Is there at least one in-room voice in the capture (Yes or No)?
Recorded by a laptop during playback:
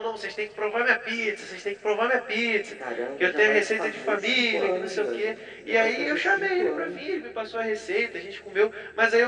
No